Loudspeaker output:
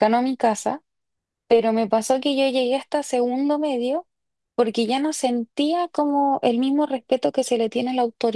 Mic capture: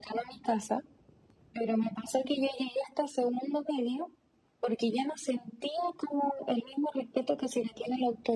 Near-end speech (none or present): none